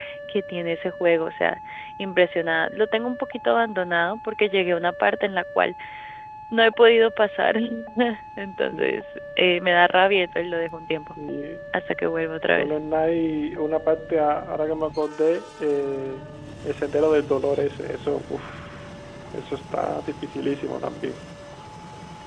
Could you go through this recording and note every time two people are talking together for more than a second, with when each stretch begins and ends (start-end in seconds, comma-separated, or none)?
none